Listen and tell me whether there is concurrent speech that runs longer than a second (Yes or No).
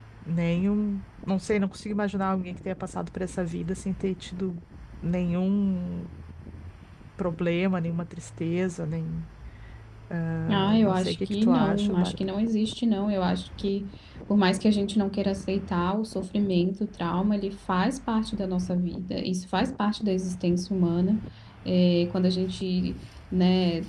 Yes